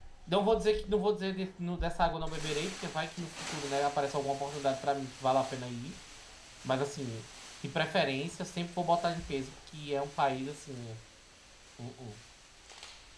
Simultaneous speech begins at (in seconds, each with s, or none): none